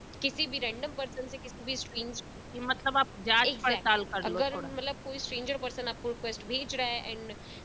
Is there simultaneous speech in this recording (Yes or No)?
Yes